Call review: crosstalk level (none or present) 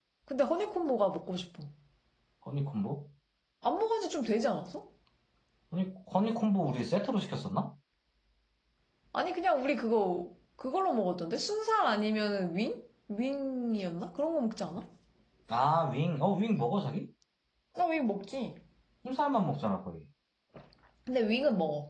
none